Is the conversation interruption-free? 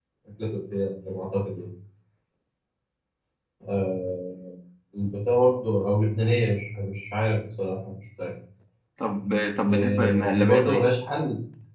No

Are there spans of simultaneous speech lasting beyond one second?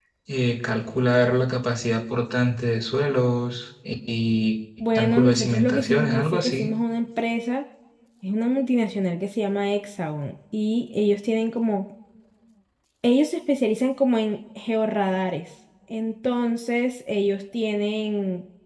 Yes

